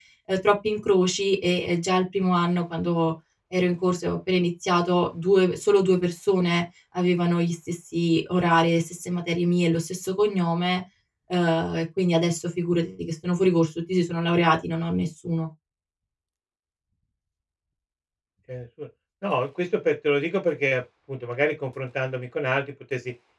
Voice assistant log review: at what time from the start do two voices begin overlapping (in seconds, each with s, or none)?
none